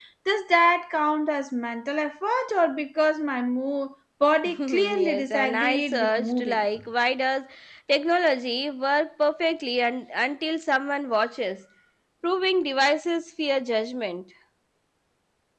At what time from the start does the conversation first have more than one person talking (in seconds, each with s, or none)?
4.5 s